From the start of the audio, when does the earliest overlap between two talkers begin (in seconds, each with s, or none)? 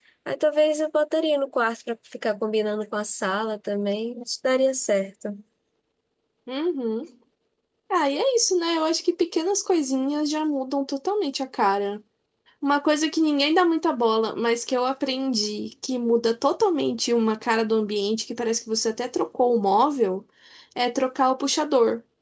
none